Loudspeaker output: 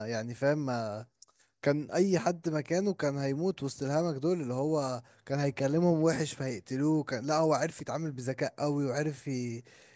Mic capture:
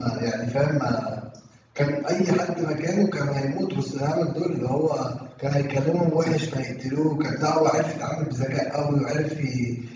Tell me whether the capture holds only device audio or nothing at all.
Yes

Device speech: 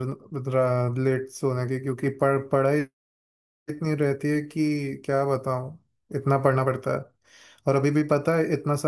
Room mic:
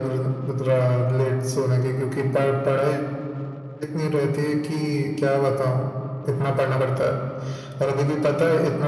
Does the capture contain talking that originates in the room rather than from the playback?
No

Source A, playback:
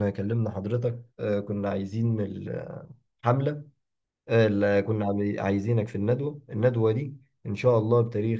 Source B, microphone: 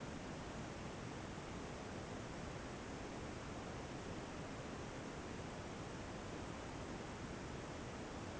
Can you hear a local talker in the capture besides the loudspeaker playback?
No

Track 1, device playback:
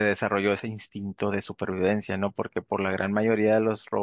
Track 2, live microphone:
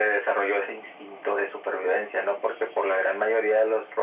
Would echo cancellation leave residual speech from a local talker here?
No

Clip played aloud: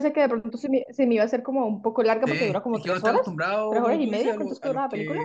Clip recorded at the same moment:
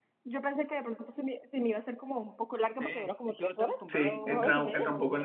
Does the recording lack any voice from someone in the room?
No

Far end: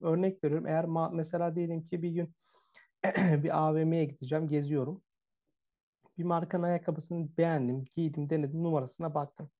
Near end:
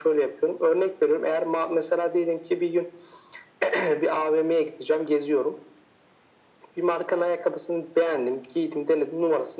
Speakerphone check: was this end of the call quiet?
Yes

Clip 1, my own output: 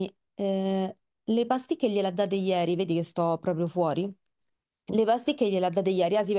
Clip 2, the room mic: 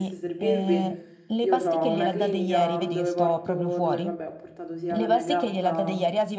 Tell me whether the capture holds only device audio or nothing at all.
No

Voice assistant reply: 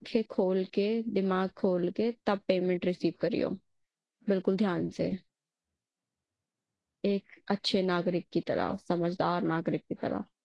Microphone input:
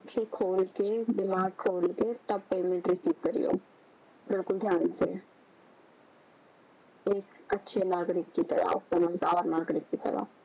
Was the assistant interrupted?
No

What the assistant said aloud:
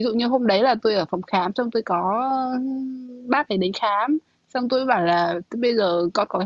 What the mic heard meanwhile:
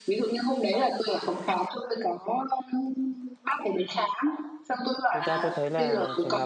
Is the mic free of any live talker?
No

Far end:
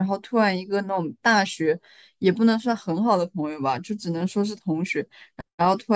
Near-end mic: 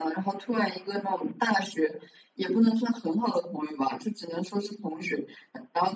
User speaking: No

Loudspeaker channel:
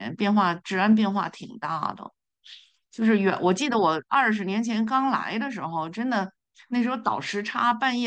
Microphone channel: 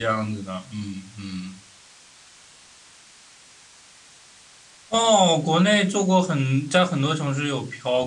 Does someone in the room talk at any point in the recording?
Yes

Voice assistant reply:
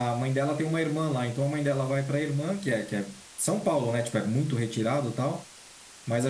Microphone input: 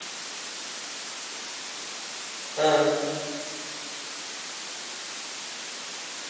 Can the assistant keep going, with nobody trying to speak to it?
No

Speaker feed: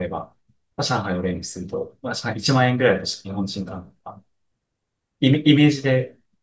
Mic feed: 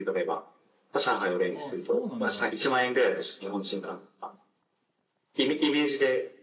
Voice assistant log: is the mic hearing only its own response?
No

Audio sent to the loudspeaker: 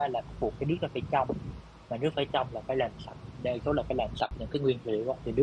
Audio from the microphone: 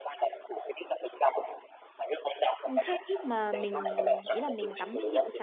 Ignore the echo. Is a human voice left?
Yes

